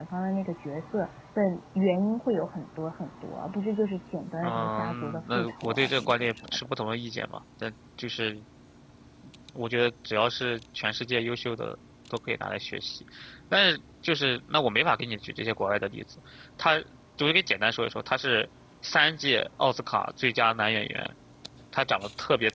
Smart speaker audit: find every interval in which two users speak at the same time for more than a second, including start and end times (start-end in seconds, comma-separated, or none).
4.4-6.6